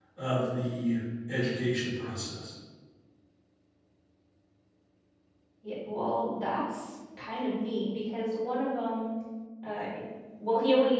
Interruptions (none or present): none